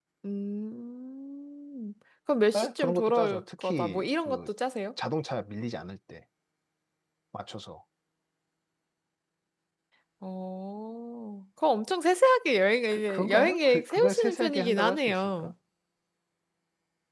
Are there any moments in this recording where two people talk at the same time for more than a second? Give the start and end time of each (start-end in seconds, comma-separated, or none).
2.6-4.5, 12.9-15.5